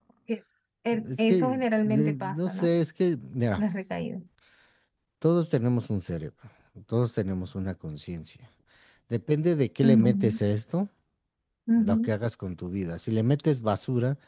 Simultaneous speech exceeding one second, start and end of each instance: 1.1-2.7

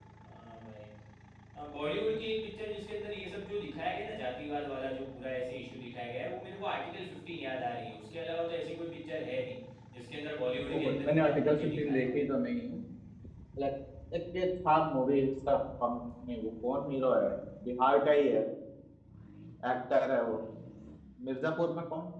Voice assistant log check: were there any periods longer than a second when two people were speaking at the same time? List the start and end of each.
10.7-12.1

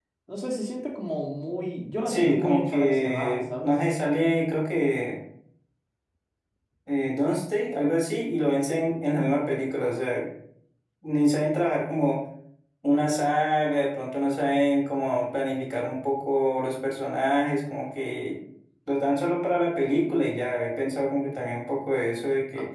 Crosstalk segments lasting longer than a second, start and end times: 2.1-3.7

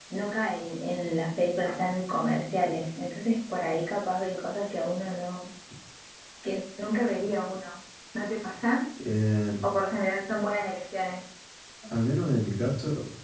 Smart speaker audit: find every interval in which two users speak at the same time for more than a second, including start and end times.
none

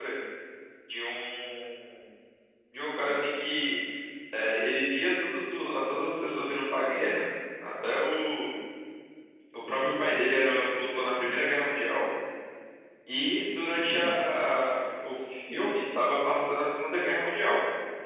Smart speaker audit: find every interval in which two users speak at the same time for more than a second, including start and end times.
none

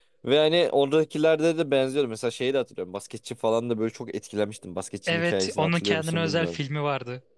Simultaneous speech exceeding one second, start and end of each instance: 5.1-6.6

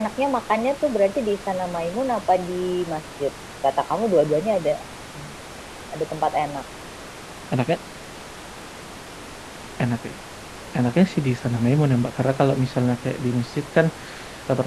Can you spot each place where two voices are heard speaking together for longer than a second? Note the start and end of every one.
none

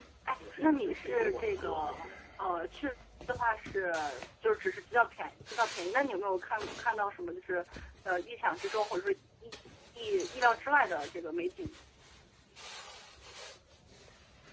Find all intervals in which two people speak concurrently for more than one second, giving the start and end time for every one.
0.6-2.1

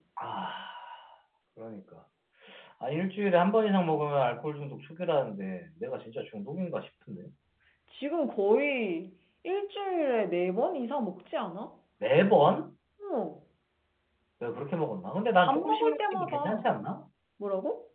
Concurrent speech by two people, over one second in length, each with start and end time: 15.4-16.7

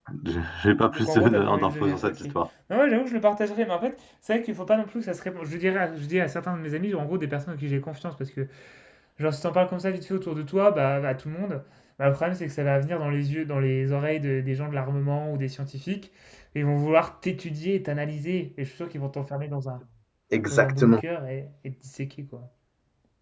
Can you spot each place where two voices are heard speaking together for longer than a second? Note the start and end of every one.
0.9-2.2

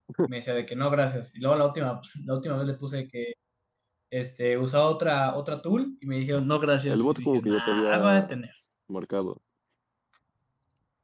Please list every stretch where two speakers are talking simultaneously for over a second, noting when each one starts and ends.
7.0-8.3

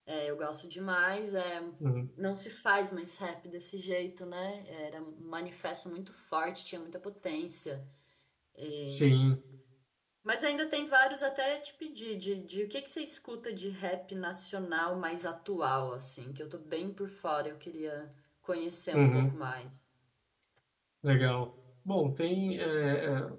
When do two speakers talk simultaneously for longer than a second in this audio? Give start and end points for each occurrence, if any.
none

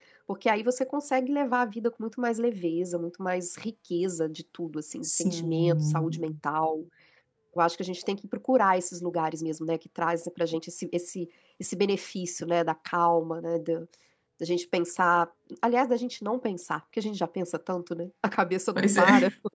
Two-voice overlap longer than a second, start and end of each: 5.0-6.3

